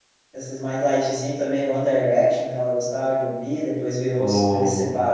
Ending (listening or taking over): listening